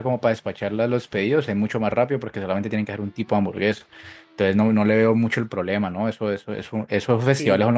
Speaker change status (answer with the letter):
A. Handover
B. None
A